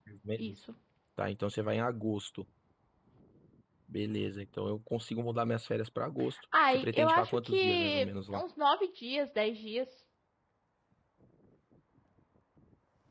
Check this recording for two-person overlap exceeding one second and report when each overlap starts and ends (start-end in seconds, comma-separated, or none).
6.7-8.4